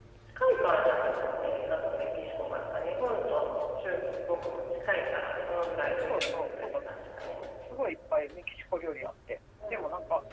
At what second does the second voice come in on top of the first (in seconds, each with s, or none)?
6.1 s